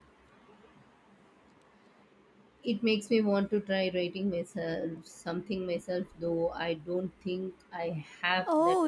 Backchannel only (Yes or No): No